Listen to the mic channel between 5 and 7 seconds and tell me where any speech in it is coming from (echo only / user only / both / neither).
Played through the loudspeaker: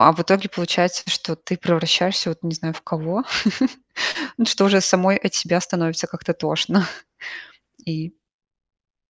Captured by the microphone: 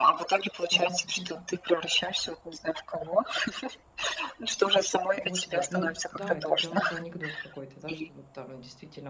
both